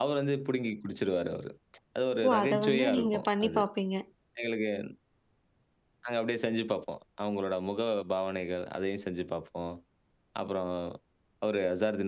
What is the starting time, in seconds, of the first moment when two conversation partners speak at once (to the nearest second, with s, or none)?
2 s